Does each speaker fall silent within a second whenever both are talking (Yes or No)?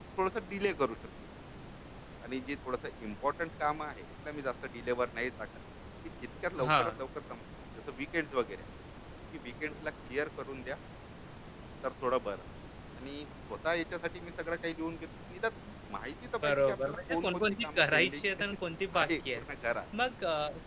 No